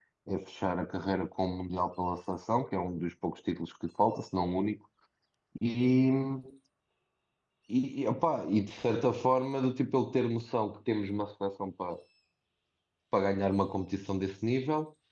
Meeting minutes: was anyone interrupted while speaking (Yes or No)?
No